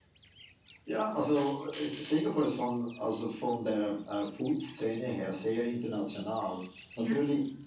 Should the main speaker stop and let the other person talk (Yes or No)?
No